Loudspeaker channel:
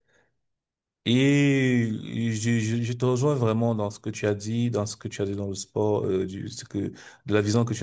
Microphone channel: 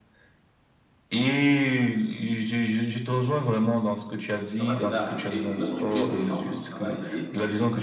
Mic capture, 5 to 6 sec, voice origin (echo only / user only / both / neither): both